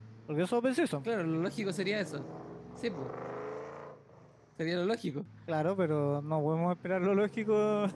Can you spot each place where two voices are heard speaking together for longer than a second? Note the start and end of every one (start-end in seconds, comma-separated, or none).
none